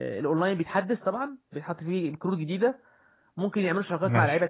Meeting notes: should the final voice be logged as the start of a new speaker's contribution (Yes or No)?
No